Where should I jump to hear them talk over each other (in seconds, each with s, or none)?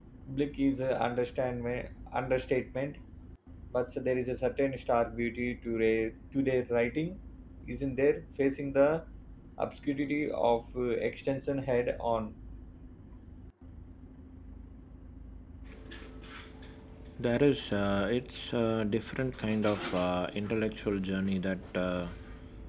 none